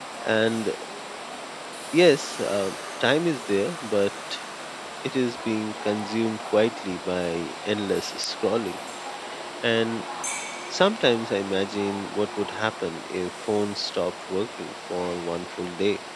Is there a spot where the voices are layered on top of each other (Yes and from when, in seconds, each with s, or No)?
No